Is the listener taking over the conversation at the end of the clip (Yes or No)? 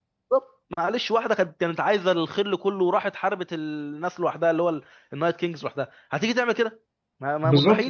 Yes